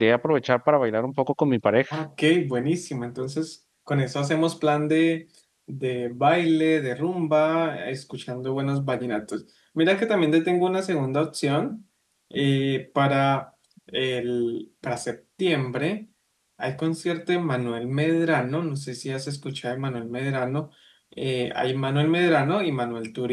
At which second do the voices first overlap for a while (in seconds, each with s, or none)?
none